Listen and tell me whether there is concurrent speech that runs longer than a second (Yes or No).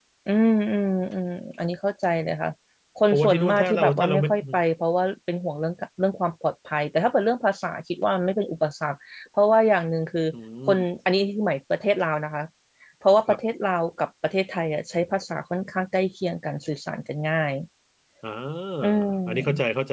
Yes